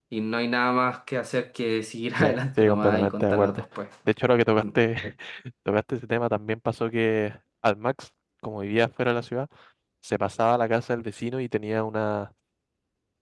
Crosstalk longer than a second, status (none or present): present